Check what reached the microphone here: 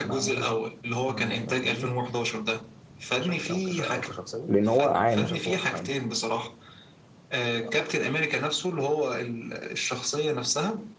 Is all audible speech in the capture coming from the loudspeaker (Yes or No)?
No